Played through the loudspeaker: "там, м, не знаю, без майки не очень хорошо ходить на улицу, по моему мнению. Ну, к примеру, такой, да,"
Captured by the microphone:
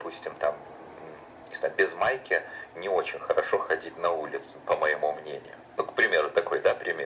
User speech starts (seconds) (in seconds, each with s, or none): none